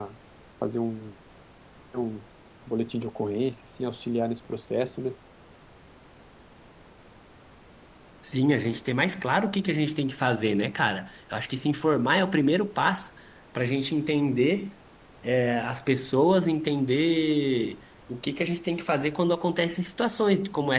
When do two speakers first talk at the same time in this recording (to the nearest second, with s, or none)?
none